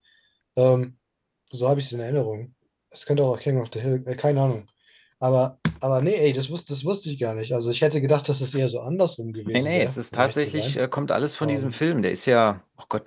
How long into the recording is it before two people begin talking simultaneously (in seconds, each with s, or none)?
9.5 s